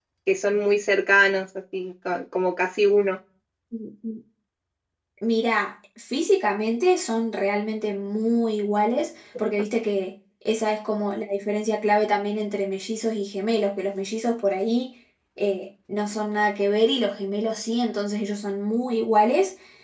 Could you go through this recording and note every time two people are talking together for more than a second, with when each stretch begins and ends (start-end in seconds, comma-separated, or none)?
none